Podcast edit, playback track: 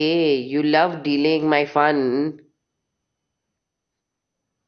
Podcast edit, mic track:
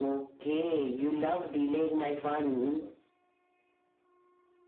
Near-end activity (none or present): present